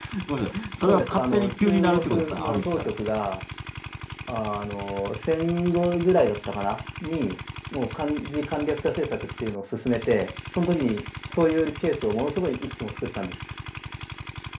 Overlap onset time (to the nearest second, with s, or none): 1 s